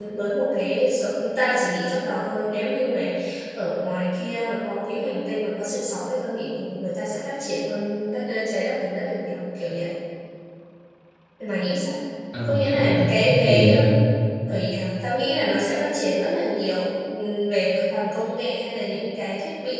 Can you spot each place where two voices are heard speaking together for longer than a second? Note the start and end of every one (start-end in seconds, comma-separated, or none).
12.4-13.7